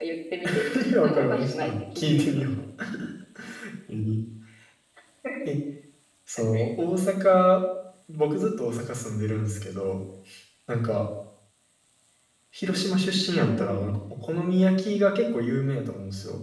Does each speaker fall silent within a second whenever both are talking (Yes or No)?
No